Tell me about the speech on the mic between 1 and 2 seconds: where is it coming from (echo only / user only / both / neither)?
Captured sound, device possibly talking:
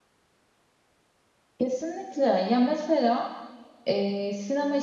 user only